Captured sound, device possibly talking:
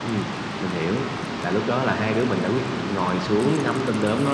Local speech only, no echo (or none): Ừm, ừm.